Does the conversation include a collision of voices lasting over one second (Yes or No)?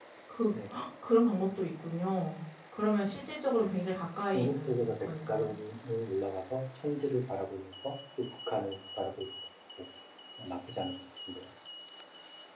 Yes